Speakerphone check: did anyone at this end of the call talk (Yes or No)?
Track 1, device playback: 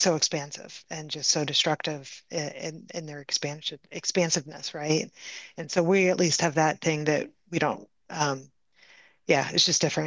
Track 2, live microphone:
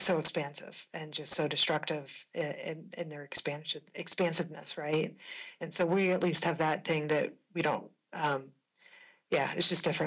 No